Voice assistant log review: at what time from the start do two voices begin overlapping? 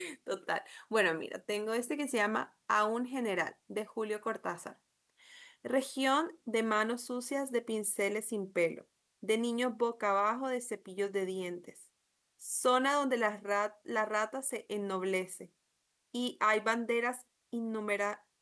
none

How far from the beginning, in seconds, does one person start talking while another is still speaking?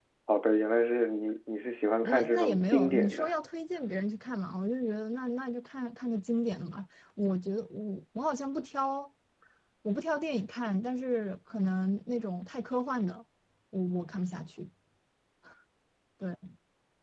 2.0 s

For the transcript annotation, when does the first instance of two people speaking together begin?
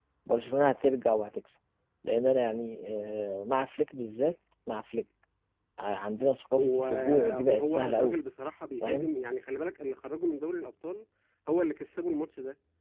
6.6 s

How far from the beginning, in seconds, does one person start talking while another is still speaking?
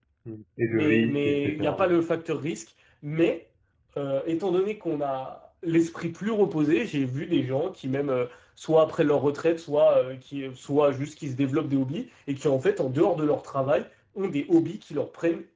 0.7 s

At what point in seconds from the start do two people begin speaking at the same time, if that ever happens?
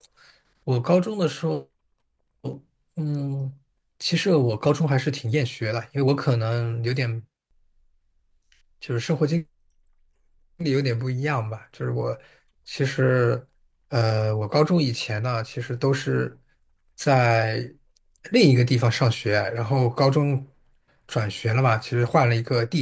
none

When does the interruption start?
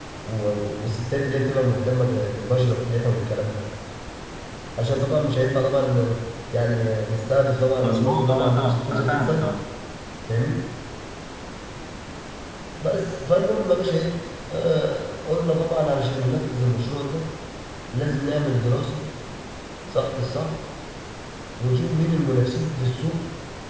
7.8 s

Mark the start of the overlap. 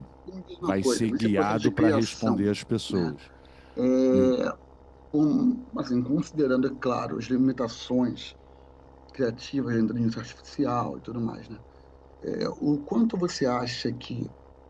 0.6 s

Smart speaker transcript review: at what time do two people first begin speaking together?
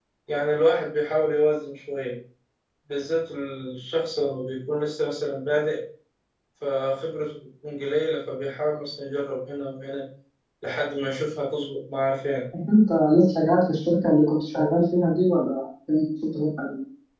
none

